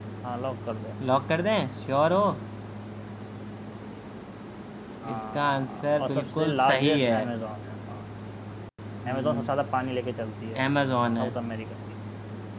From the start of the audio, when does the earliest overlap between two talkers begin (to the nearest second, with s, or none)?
5 s